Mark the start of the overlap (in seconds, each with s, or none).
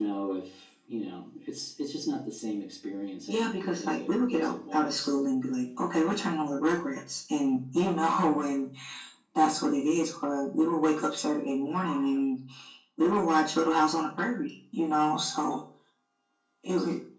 3.3 s